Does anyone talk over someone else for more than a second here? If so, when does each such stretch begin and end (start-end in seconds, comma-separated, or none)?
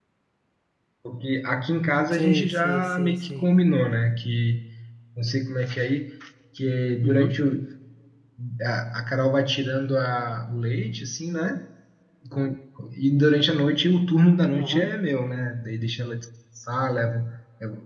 2.1-3.5